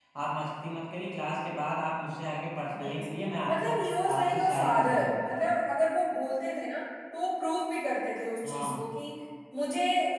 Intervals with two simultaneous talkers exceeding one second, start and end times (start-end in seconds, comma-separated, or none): 4.2-5.4